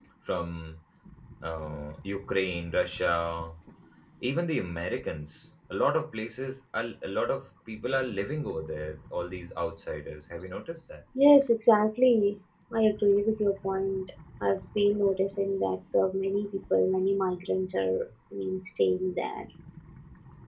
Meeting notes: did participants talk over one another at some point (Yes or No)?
No